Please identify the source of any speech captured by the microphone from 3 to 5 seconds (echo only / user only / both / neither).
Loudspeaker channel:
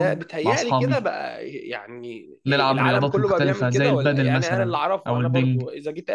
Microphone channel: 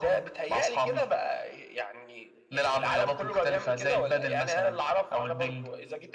echo only